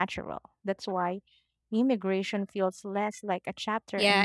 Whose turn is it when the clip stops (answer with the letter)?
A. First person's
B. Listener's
B